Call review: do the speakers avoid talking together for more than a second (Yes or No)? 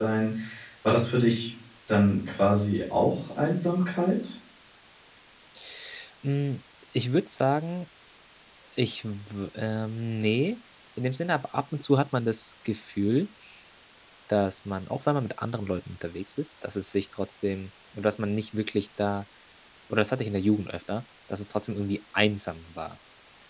Yes